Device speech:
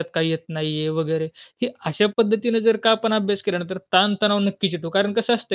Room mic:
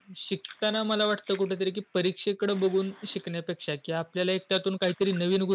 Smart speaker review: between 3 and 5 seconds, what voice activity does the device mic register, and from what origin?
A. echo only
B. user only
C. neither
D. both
B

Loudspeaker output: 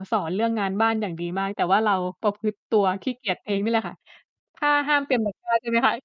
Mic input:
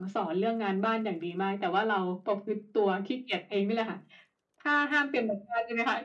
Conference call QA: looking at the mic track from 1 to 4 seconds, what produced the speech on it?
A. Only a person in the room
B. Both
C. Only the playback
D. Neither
C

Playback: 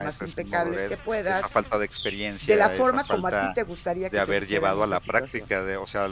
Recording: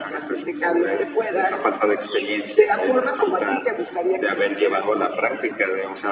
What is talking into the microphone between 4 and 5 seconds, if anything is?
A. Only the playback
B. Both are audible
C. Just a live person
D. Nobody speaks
A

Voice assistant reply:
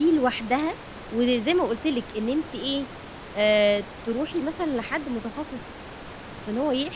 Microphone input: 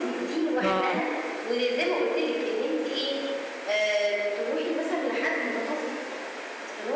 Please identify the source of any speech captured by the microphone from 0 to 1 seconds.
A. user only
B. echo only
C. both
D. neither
C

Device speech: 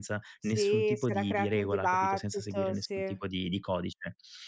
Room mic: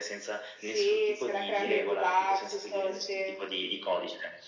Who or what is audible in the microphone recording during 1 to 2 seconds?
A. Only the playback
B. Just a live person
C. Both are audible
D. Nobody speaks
C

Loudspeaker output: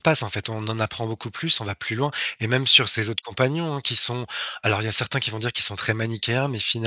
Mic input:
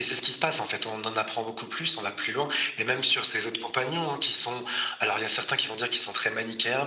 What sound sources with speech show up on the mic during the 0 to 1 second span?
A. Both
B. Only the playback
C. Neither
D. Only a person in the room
B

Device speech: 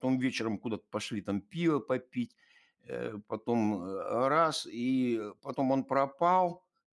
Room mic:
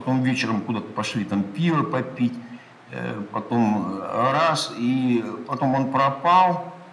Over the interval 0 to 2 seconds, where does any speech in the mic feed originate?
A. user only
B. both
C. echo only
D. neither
C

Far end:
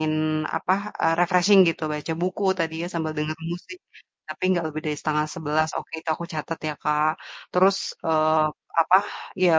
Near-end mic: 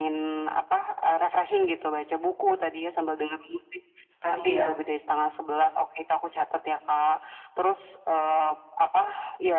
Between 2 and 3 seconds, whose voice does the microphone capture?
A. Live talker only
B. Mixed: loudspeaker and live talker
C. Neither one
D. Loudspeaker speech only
D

